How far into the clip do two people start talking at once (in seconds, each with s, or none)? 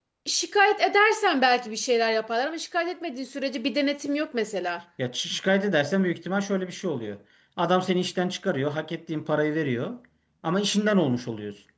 none